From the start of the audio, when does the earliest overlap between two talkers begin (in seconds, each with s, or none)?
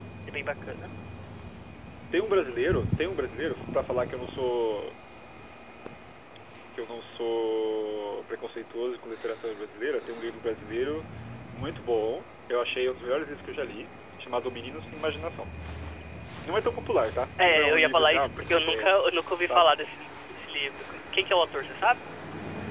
17.4 s